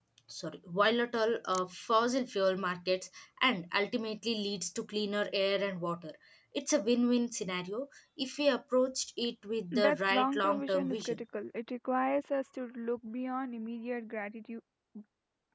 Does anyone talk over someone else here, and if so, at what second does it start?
9.7 s

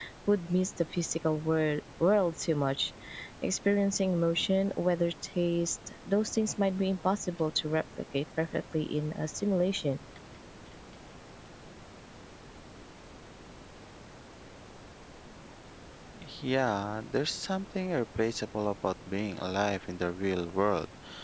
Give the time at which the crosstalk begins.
none

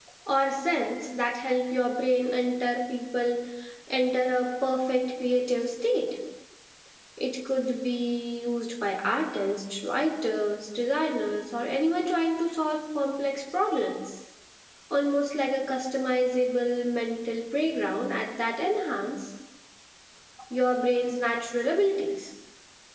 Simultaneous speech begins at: none

